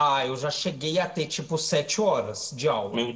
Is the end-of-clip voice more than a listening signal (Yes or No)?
No